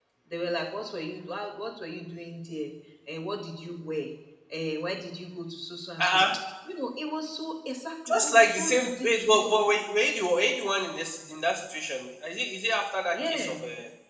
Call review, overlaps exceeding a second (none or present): present